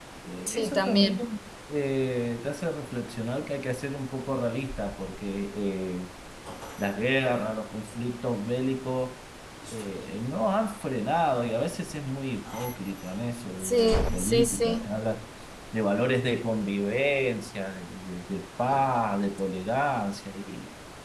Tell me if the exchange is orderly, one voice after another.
No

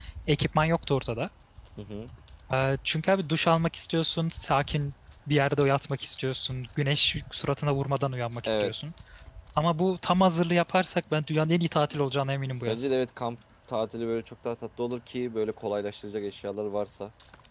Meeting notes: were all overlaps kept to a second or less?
Yes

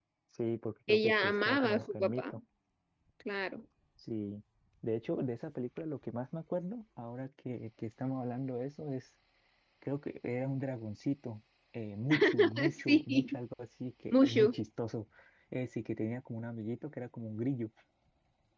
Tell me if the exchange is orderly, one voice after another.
No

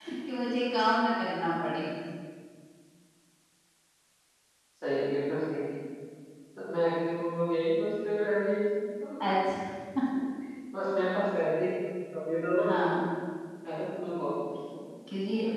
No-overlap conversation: Yes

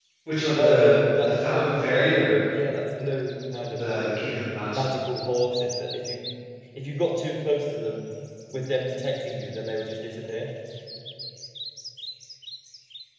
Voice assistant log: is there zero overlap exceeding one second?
No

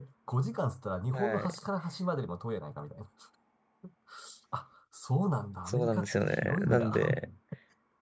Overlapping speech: Yes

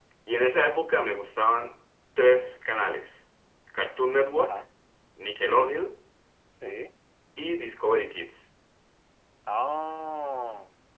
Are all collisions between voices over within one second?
Yes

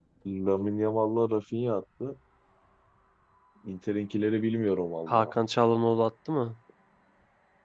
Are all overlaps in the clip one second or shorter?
Yes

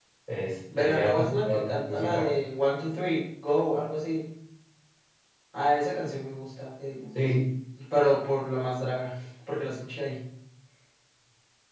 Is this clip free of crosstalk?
No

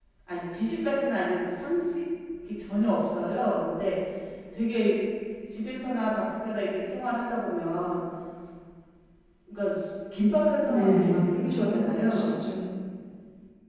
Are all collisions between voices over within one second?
No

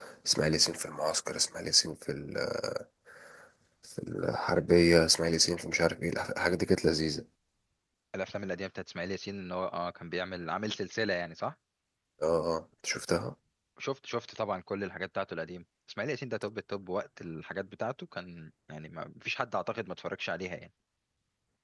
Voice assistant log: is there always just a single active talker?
Yes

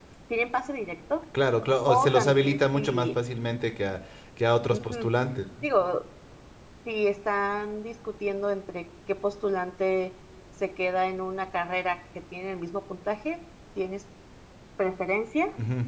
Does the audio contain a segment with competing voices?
Yes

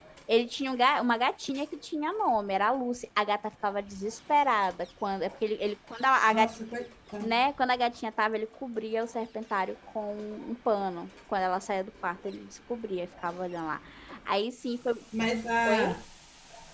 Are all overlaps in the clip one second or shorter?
Yes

